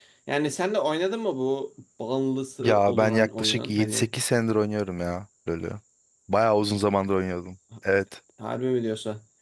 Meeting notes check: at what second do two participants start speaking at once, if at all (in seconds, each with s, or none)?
2.6 s